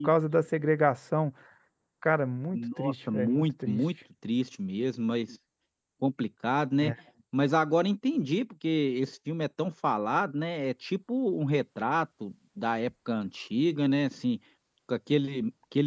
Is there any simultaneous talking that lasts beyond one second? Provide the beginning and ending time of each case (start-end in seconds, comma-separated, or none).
2.5-3.8